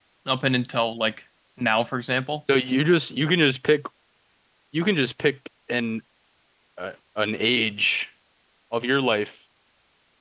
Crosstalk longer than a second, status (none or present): none